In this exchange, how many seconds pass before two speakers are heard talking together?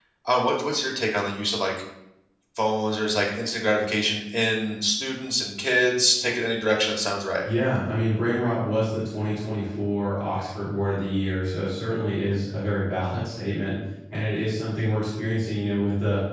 none

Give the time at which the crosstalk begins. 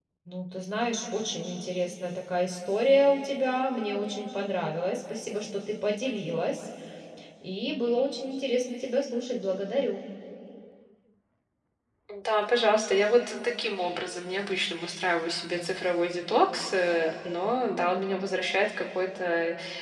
none

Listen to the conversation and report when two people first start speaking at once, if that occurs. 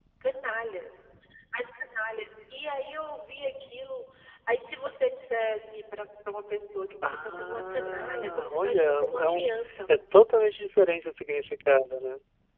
7.0 s

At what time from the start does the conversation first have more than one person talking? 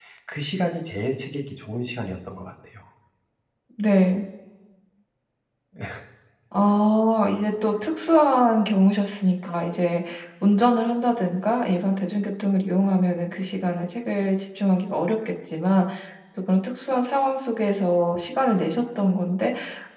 none

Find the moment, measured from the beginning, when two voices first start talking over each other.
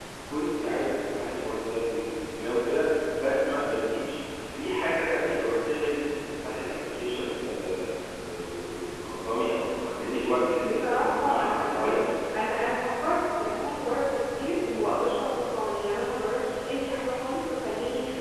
10.6 s

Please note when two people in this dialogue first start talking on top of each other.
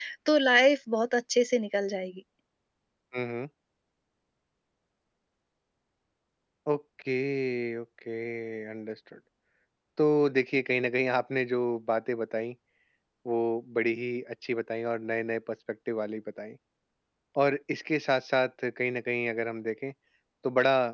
none

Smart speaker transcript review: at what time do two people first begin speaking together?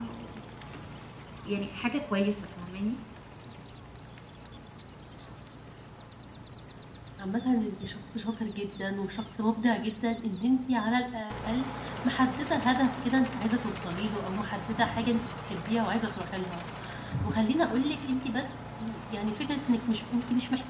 none

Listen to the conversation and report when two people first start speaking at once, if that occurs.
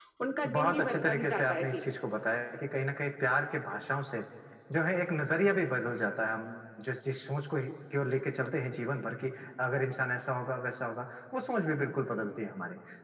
0.5 s

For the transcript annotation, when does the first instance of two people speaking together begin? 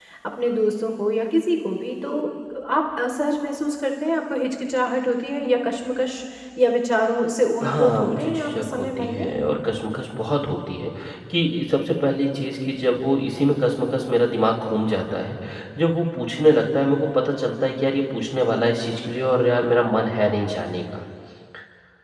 7.6 s

